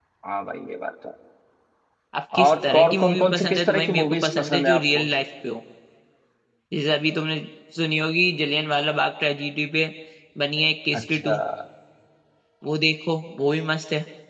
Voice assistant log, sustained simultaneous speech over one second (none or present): present